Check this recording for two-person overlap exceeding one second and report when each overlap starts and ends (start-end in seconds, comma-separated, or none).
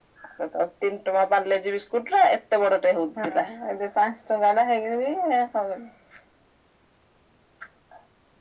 none